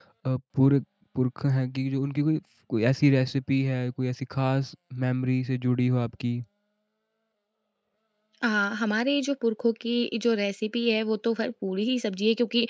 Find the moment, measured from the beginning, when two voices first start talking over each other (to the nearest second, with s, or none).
none